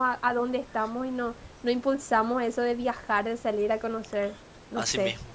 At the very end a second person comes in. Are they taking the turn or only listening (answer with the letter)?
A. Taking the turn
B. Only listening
A